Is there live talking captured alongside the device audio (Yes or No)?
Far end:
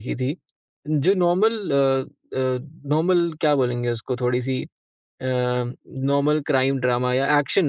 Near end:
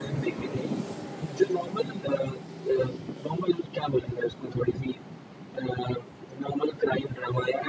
No